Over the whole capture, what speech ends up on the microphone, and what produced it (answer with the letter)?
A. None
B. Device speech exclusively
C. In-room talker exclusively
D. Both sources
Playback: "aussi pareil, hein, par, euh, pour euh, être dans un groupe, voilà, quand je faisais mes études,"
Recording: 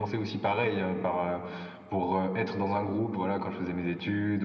B